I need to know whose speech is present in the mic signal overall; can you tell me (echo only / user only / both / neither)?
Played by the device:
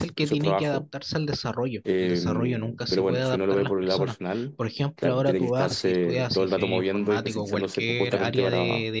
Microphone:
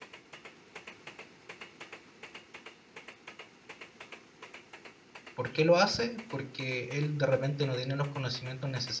user only